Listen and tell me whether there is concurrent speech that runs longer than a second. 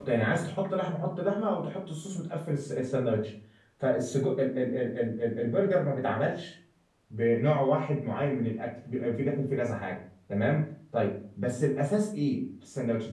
No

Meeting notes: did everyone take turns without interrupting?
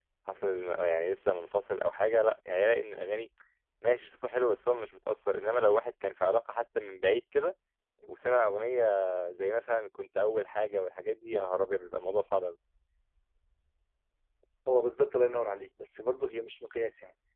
Yes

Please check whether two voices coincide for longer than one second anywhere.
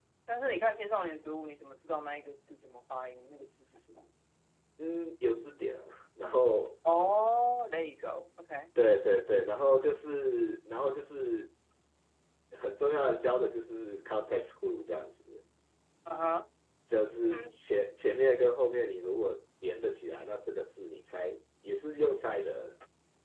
No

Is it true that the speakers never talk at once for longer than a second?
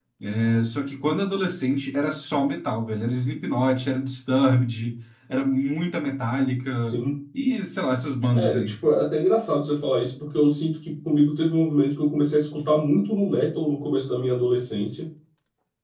Yes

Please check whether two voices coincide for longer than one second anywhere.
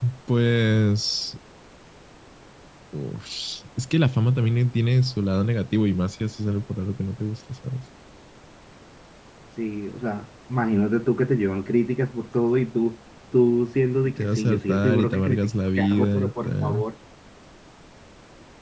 Yes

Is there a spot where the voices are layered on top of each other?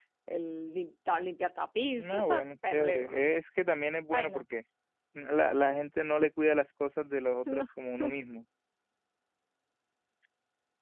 Yes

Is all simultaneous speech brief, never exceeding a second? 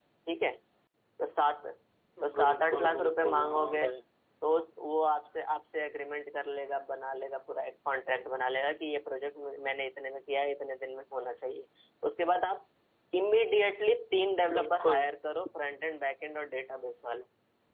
No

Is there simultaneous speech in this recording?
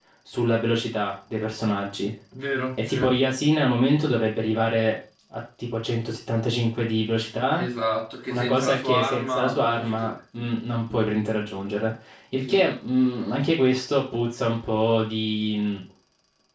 Yes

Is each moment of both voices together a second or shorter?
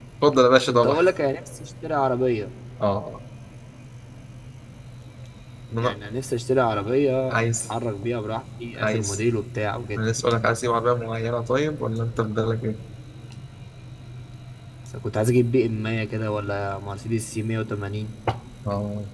Yes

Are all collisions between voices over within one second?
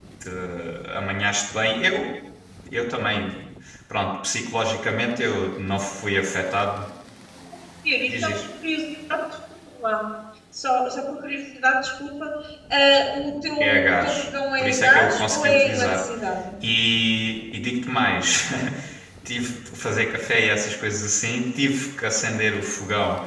No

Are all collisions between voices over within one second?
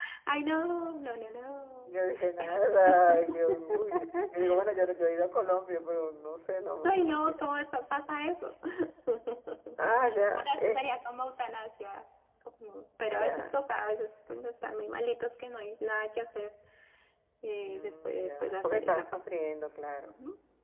No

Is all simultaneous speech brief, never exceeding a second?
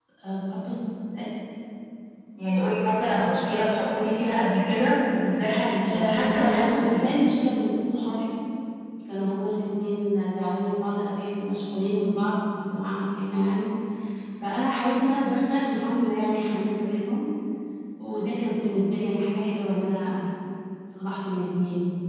No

